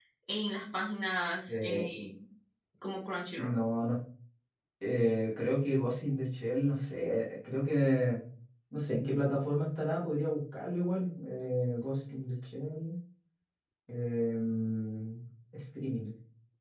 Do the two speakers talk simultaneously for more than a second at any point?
No

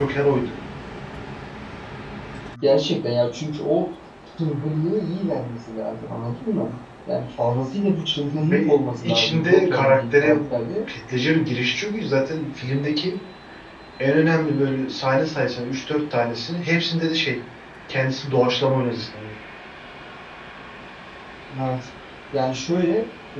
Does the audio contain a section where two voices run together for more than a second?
Yes, from 8.3 s

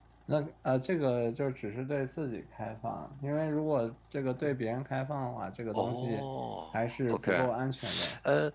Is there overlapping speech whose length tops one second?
No

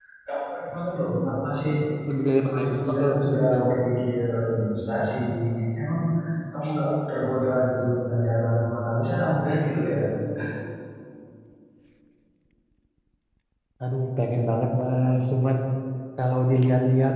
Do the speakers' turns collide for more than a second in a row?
Yes, from 2.5 s

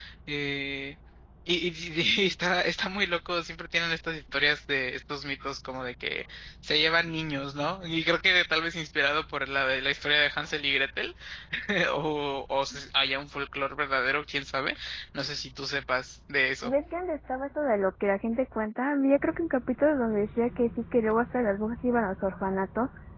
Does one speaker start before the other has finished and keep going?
No

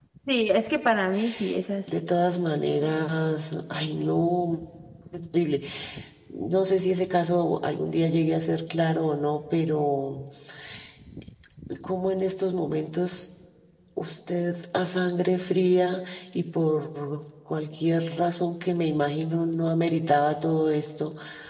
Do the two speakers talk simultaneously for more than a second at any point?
No

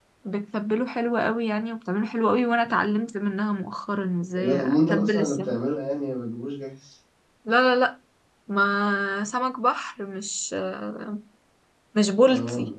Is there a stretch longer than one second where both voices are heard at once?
Yes, from 4.3 s

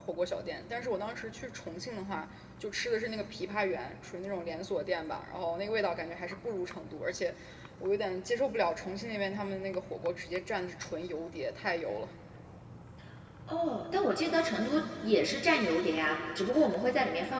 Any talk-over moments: No

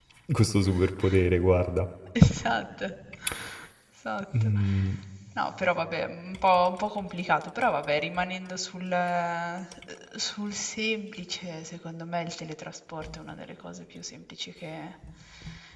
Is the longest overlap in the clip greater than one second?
No

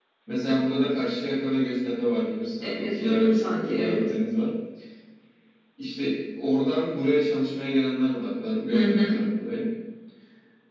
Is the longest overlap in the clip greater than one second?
Yes, from 2.6 s

